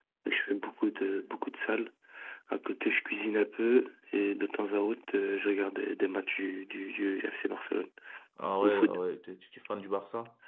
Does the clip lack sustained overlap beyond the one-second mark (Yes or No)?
Yes